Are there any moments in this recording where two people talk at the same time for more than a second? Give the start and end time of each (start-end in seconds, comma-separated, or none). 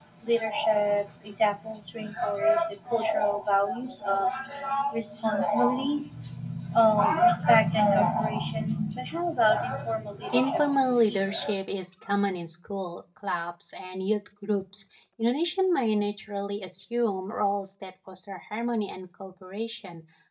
10.3-11.6